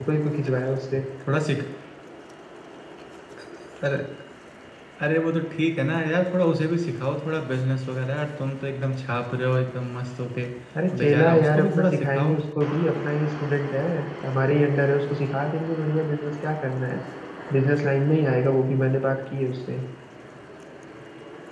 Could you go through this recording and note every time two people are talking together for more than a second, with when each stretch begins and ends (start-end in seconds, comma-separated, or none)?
11.0-12.4